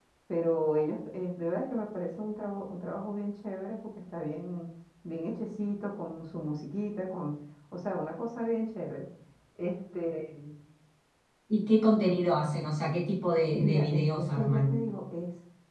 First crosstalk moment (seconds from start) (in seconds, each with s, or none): 13.6 s